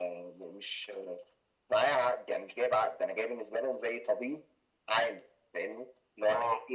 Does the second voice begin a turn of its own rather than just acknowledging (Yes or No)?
No